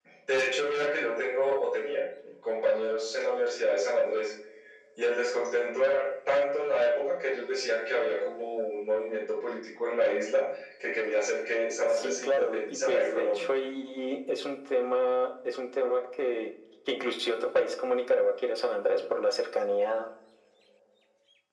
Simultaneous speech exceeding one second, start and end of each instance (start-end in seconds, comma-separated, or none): 12.0-13.5